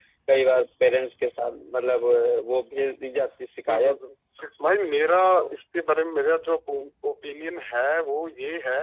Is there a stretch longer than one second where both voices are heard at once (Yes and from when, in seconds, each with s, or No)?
No